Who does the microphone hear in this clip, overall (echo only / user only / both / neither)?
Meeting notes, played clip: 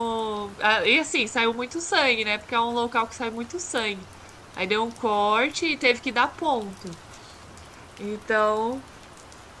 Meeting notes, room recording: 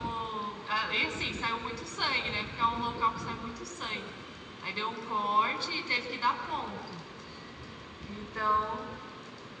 echo only